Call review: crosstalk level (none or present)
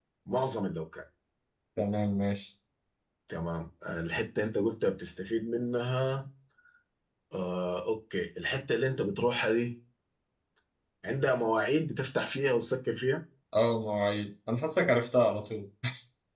none